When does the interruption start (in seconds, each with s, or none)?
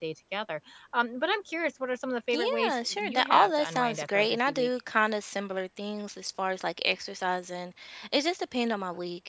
2.3 s